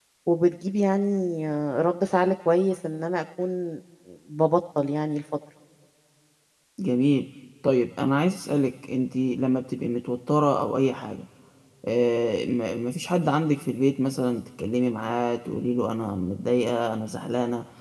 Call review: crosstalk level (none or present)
none